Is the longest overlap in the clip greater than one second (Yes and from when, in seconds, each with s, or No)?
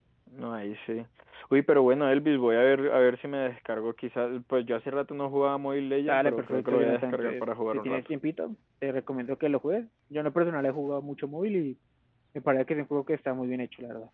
Yes, from 6.1 s